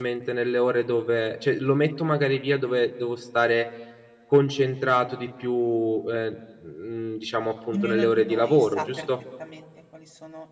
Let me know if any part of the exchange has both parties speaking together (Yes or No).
Yes